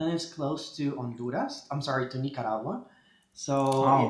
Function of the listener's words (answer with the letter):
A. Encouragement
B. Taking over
A